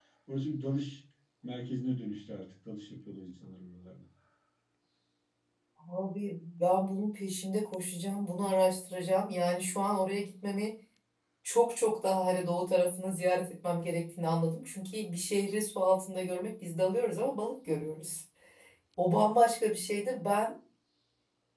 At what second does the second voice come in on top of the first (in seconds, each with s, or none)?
none